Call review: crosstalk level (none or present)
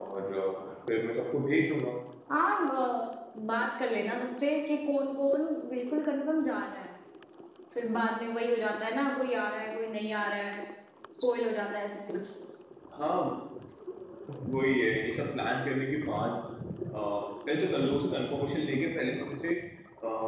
none